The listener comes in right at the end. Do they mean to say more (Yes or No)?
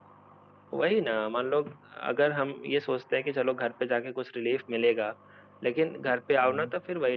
No